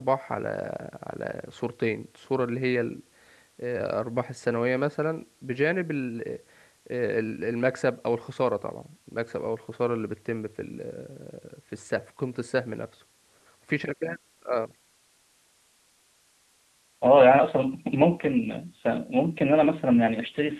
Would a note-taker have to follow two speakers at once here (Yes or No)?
No